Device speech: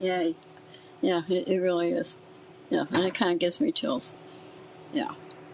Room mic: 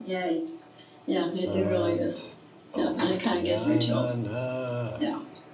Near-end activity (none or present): present